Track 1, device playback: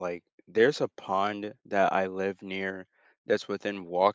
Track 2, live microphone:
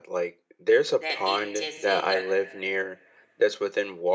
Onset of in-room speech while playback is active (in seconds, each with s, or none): 1.0 s